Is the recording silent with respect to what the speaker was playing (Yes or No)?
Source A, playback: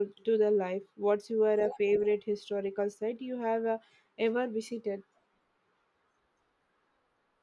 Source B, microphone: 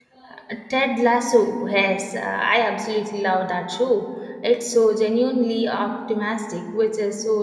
Yes